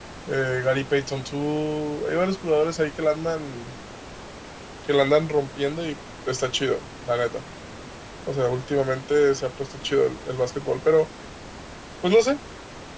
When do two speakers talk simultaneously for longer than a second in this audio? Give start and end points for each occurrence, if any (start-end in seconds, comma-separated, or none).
none